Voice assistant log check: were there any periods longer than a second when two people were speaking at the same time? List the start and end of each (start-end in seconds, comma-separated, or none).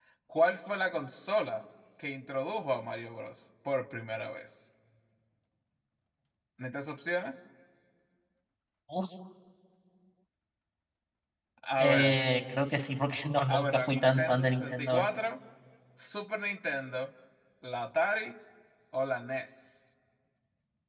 13.5-15.1